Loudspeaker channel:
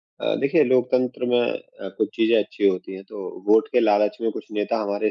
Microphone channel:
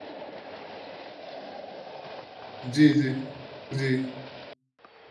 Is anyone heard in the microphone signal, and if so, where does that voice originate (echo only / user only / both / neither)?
user only